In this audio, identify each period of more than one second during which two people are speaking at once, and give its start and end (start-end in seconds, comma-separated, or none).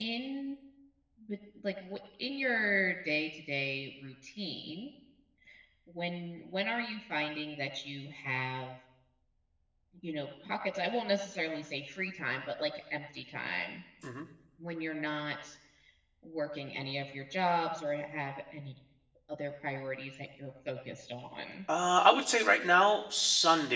none